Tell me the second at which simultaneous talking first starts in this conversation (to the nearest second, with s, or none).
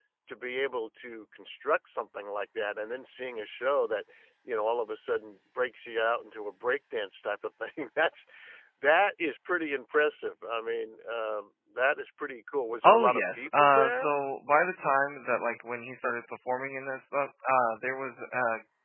13 s